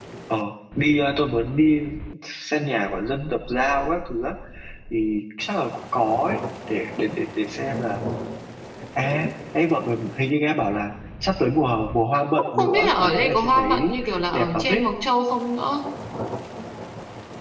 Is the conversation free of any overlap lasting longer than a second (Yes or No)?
No